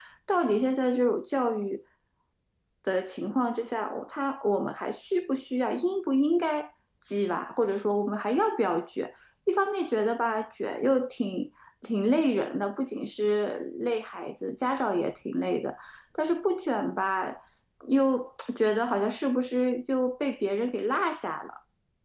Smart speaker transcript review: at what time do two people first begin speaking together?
none

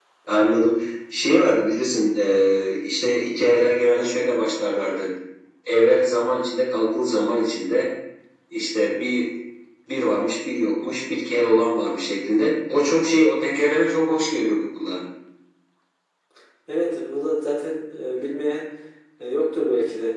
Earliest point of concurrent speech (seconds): none

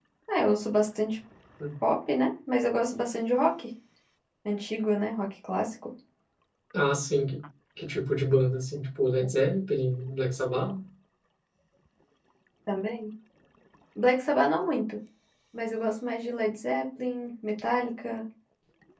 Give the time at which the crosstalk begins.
none

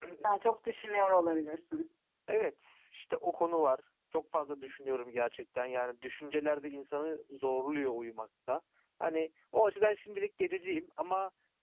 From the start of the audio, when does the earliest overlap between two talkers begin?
none

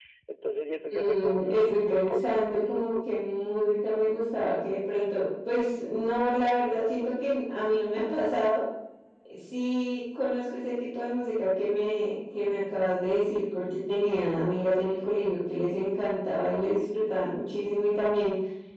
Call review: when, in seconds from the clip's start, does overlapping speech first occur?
0.9 s

